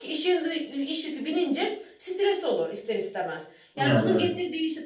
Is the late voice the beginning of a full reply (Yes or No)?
No